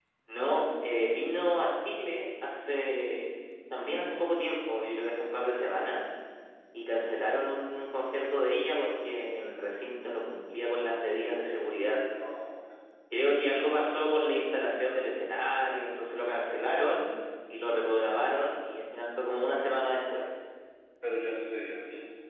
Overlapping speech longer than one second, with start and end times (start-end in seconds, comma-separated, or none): none